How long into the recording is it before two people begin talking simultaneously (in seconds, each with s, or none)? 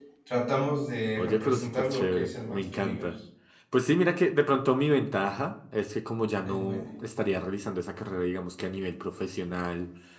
1.2 s